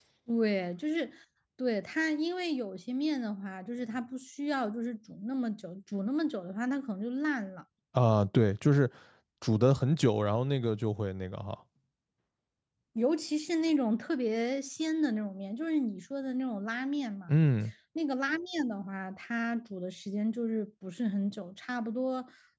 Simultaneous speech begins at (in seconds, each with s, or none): none